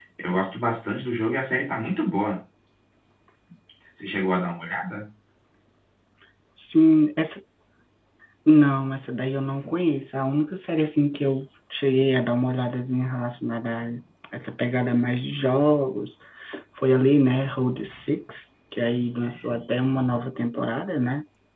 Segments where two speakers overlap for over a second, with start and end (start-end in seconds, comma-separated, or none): none